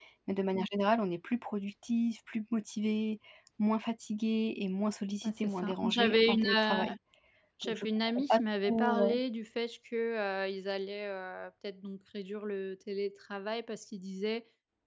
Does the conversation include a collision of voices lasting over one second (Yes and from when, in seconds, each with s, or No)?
Yes, from 5.2 s